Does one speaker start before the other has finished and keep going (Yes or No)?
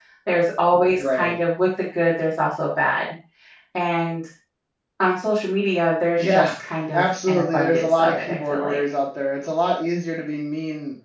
Yes